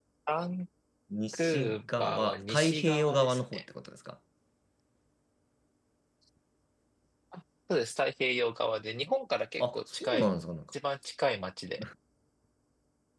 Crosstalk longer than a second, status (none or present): present